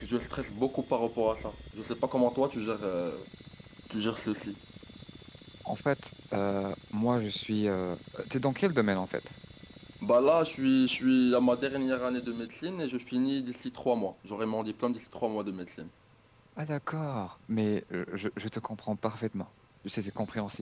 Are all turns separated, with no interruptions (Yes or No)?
Yes